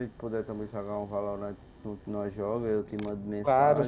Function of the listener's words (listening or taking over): listening